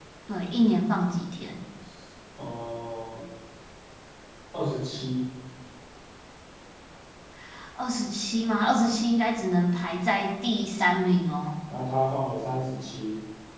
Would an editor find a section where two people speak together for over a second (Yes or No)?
No